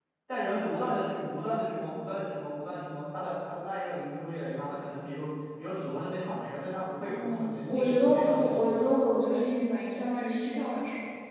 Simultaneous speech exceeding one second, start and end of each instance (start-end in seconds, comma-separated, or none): 7.1-8.8